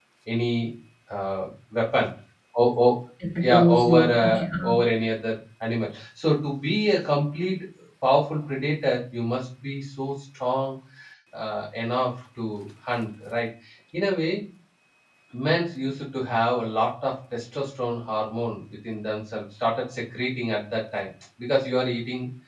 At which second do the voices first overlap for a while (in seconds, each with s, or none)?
3.4 s